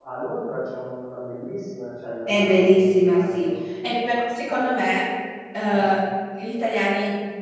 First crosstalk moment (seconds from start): 2.3 s

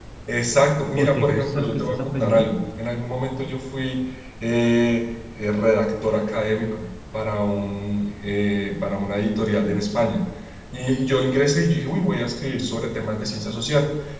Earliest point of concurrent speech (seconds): 1.0 s

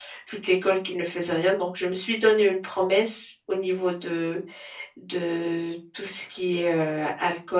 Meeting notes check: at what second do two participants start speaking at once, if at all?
none

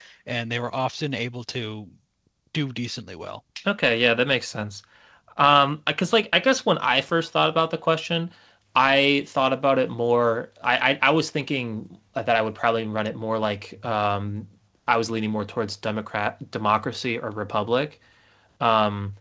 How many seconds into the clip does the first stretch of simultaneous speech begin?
none

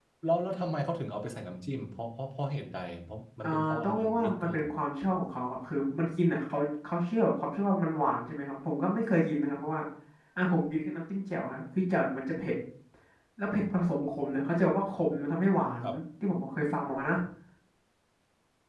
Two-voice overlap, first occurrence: 3.4 s

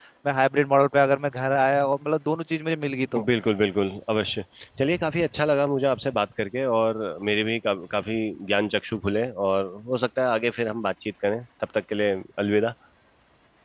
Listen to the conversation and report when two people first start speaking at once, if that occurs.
none

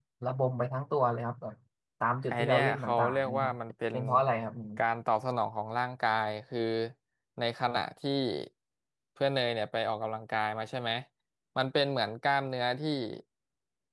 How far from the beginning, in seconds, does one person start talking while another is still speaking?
2.3 s

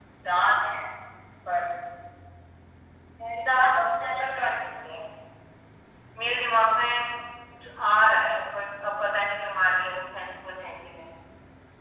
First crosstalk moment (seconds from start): 3.4 s

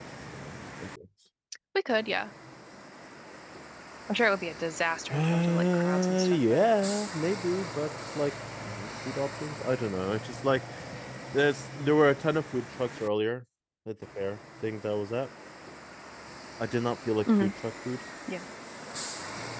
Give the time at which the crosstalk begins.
5.1 s

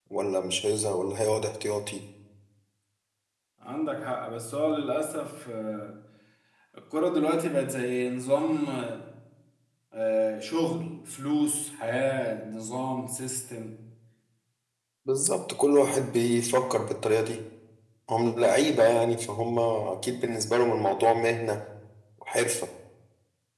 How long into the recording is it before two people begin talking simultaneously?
none

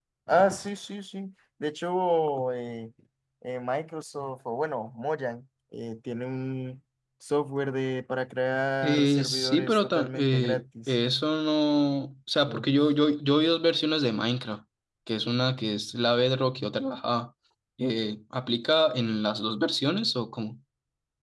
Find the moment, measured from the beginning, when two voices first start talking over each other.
8.8 s

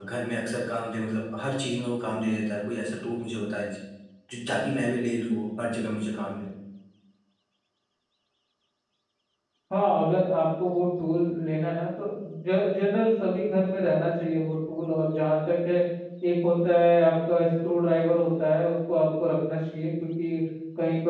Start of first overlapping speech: none

